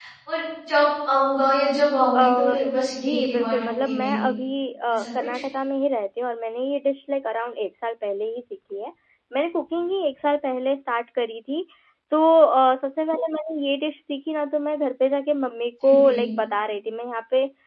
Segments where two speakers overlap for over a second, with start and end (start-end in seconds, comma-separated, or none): 3.0-4.3